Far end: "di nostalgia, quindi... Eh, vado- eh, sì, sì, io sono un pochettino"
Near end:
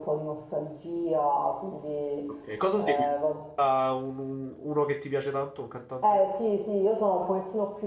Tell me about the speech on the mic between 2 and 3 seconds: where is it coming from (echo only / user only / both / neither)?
both